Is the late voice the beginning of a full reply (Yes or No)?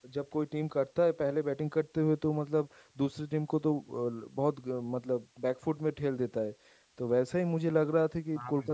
No